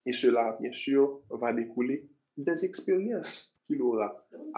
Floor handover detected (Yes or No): No